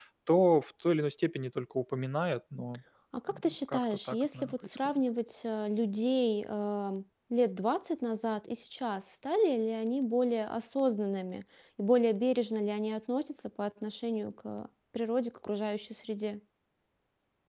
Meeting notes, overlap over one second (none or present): present